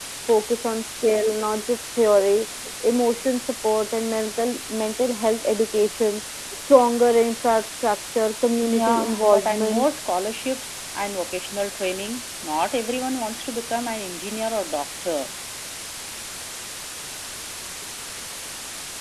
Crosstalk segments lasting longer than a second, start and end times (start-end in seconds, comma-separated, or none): 8.6-9.8